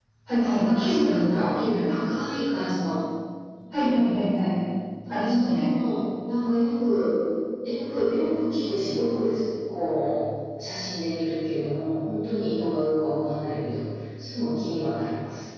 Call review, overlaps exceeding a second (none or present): present